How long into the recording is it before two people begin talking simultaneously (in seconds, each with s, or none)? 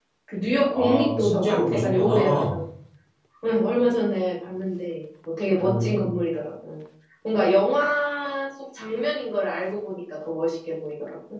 0.7 s